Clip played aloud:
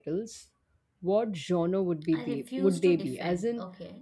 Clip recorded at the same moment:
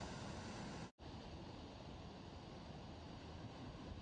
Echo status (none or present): none